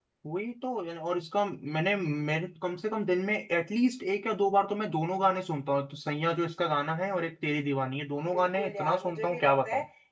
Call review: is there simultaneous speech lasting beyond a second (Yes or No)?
Yes